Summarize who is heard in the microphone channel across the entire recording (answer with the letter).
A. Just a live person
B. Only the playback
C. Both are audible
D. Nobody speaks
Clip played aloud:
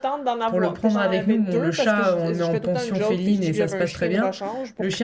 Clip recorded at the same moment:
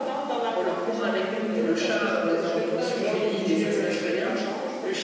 B